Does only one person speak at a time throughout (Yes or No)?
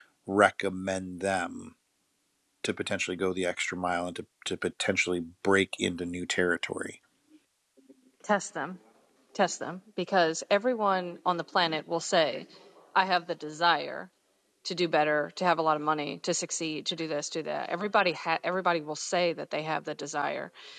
Yes